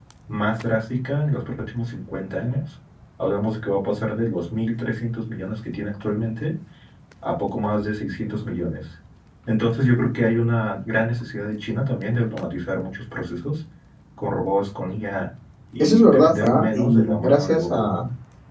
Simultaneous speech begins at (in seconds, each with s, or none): 15.8 s